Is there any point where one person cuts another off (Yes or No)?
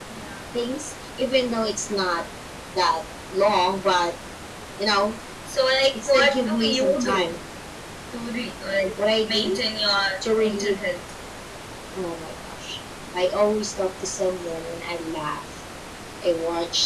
Yes